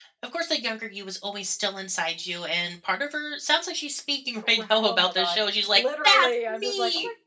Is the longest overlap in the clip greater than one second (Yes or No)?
Yes